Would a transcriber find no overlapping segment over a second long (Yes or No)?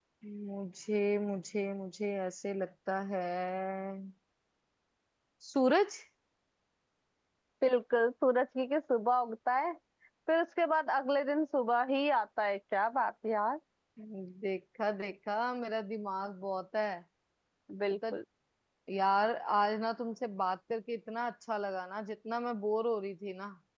Yes